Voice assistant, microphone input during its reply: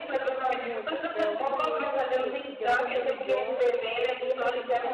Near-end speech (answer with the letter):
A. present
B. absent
A